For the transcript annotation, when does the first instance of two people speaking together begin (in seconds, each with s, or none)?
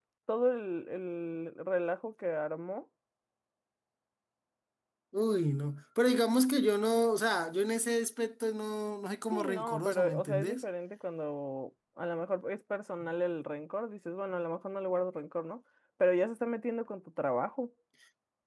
9.3 s